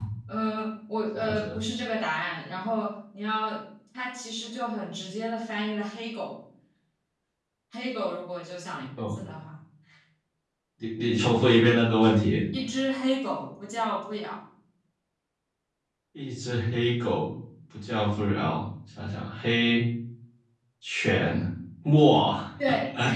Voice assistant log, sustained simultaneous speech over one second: none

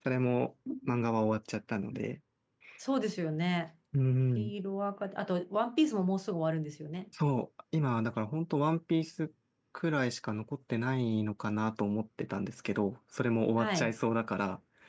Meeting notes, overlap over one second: none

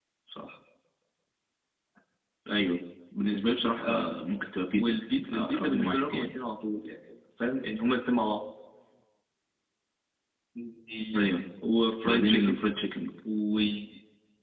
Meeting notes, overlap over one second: present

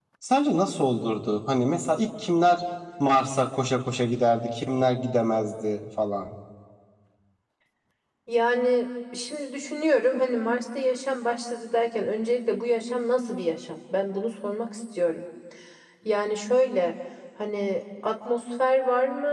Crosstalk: none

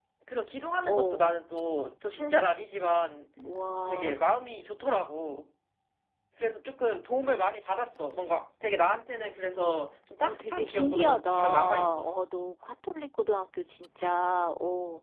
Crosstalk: present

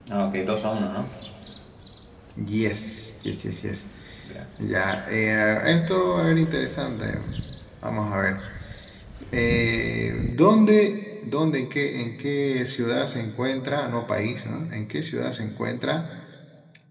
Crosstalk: none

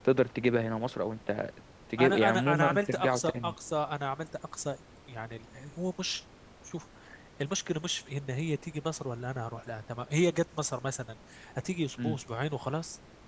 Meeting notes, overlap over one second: present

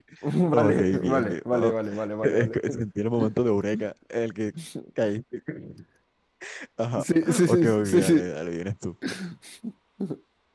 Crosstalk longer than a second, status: present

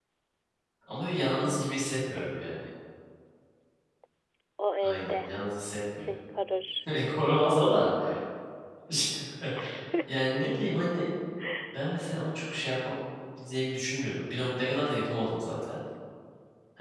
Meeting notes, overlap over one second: none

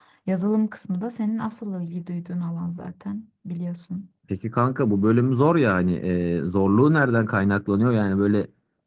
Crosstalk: none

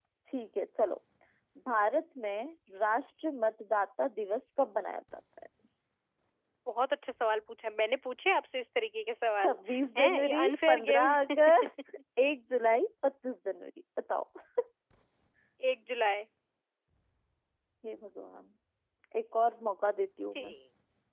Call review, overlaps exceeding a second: present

